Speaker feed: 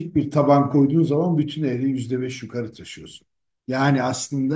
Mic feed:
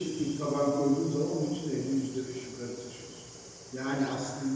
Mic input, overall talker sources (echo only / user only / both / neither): echo only